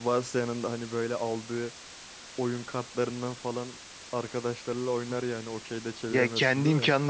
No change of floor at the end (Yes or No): No